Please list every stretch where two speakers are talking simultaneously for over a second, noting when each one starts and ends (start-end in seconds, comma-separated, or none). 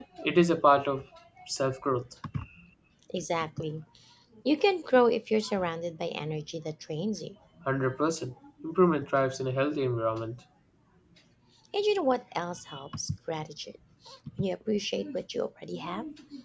none